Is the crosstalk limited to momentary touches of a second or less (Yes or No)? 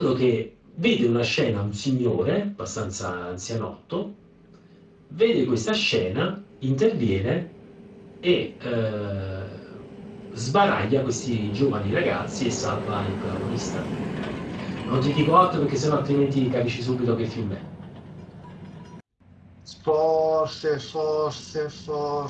Yes